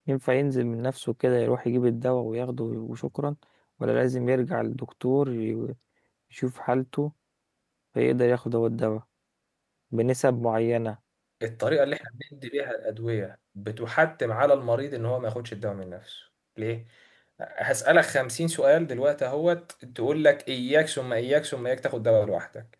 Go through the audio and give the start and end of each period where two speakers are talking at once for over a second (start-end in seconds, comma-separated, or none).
none